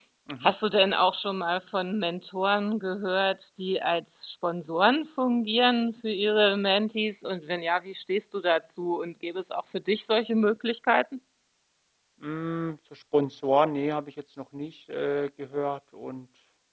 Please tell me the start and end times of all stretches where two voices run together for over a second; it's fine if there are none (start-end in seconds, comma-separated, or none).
none